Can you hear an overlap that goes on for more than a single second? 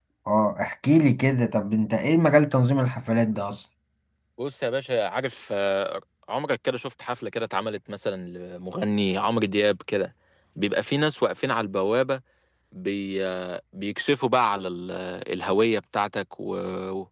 No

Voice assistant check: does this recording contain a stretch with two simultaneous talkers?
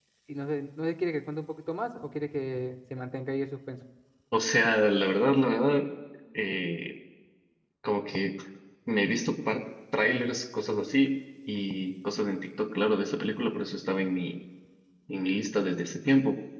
No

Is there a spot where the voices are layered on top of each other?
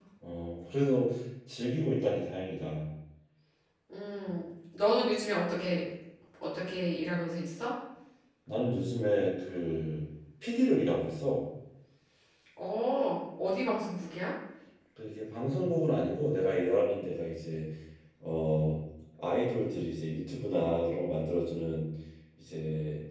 No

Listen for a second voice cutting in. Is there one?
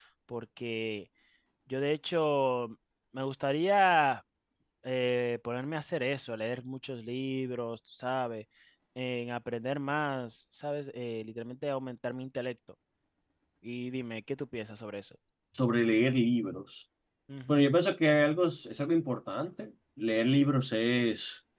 No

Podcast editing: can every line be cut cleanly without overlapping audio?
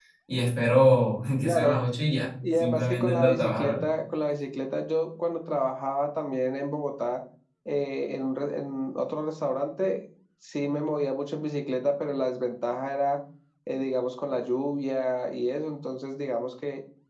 No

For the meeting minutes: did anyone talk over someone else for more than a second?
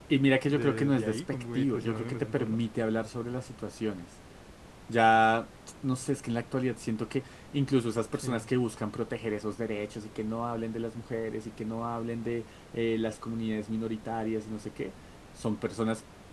Yes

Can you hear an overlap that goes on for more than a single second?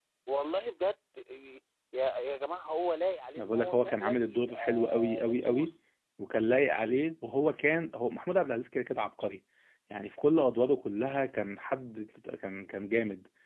Yes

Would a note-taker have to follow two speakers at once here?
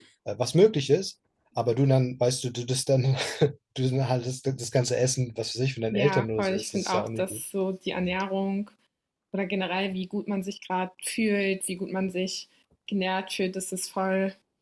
Yes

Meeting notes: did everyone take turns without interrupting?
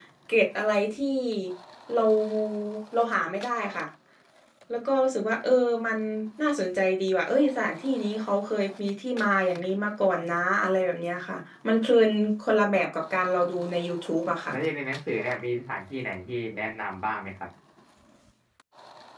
Yes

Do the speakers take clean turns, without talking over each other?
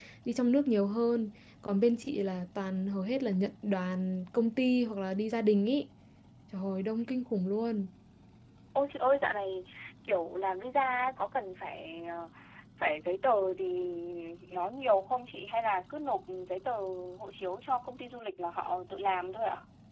Yes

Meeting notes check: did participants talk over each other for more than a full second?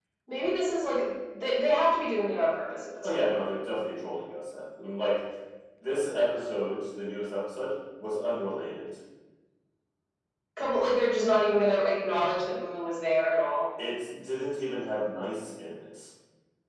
No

